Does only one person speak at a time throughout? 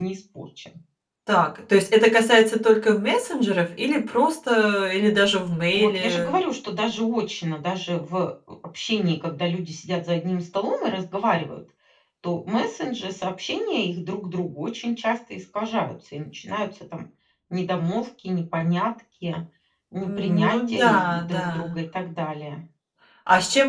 No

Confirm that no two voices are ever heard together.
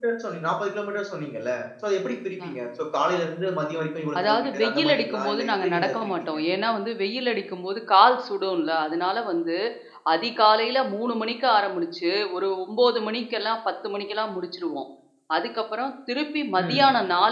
No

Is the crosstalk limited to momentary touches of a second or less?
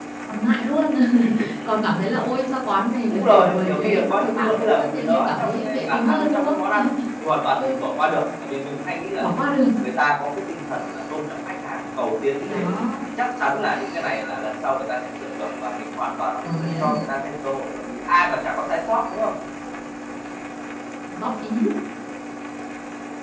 No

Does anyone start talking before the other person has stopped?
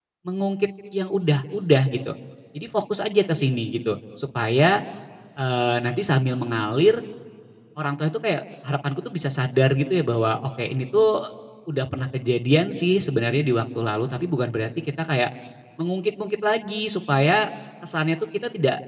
No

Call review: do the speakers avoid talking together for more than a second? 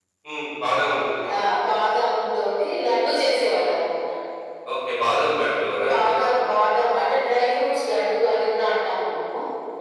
Yes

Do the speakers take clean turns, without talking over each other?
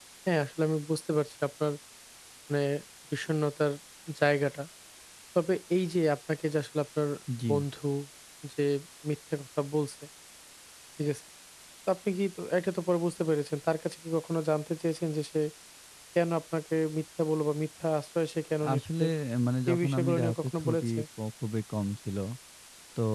No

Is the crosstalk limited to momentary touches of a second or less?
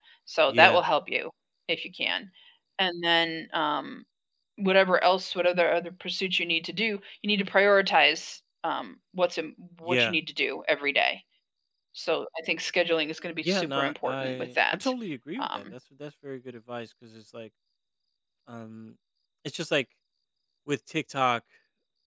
No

